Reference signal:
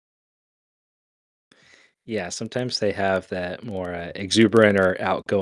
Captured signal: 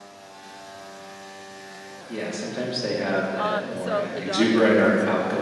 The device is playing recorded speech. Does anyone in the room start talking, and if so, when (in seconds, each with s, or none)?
3.3 s